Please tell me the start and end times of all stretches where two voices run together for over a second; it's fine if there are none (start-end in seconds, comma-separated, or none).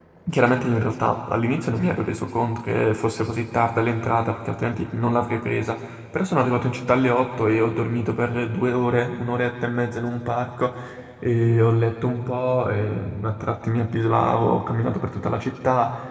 none